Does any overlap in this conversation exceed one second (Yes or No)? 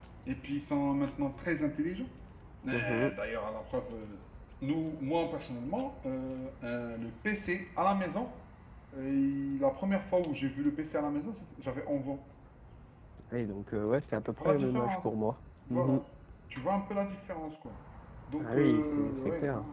Yes